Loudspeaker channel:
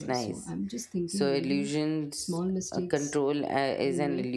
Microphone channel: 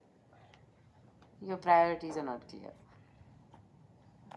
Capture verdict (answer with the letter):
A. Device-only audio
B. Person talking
B